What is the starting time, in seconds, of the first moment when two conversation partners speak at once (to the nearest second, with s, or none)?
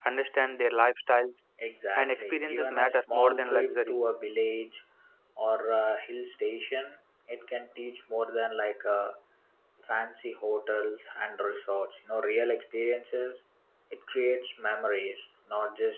2 s